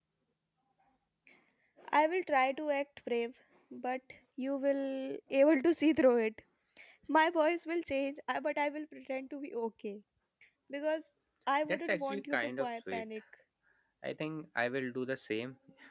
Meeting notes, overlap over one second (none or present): present